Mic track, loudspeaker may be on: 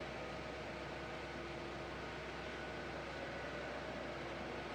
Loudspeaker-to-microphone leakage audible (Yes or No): No